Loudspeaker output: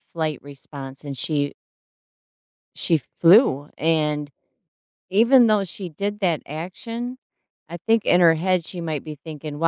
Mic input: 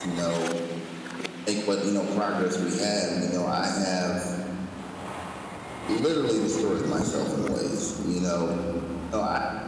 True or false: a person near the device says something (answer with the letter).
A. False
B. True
B